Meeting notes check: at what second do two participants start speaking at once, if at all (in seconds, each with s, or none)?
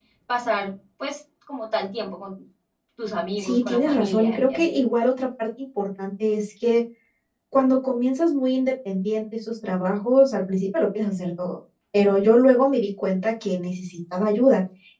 3.4 s